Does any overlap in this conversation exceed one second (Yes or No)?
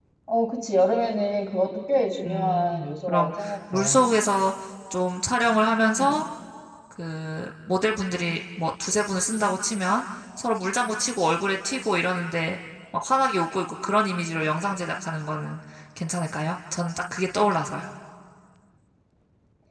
Yes